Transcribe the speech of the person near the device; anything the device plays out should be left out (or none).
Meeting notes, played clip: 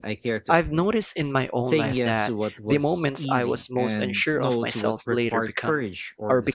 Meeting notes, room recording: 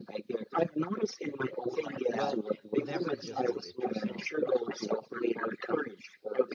Well, you never adjusted it yourself.